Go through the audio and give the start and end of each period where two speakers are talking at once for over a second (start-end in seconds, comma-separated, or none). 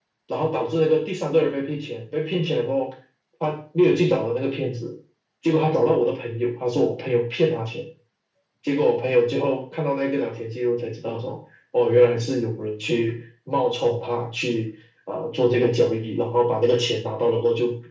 none